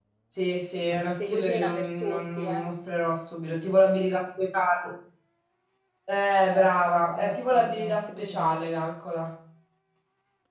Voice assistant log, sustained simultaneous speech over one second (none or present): present